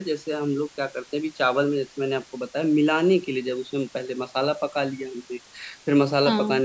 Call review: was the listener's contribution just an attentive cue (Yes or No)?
Yes